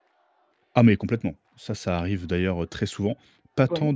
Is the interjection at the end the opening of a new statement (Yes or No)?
No